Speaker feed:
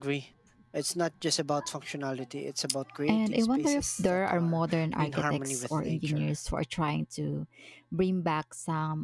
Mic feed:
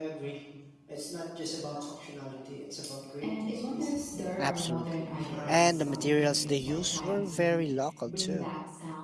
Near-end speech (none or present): present